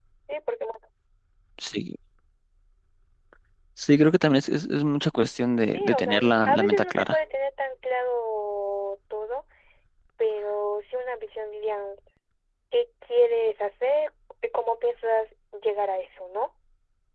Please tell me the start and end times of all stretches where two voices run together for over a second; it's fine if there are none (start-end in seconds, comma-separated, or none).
5.7-7.2